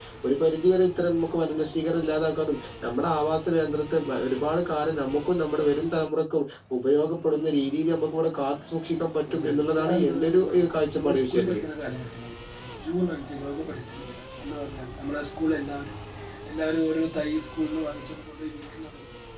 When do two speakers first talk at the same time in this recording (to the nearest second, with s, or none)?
9 s